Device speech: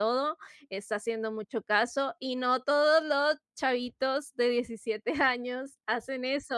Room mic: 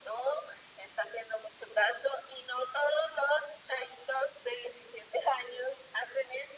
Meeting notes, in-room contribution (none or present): none